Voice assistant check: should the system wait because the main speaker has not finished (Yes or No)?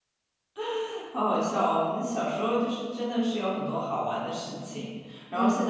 Yes